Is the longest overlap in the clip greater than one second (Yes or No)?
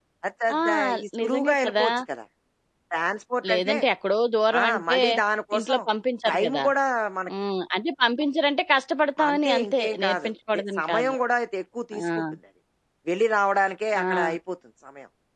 Yes